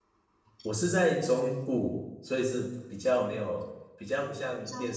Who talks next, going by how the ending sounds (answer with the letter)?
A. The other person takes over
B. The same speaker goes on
B